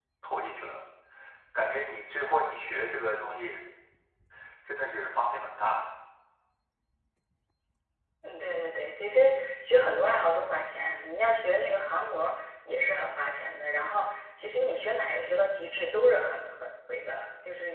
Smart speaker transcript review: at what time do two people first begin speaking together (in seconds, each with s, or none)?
none